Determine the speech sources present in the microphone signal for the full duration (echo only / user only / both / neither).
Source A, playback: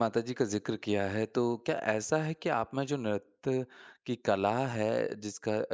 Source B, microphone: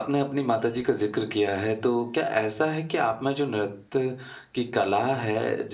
echo only